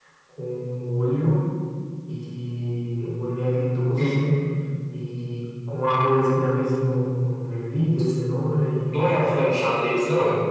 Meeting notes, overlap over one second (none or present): none